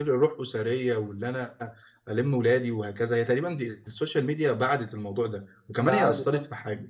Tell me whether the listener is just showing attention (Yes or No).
Yes